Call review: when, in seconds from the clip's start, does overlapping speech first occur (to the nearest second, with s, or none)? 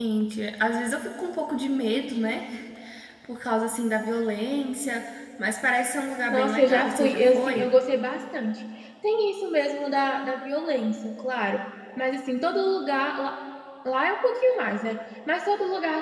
6 s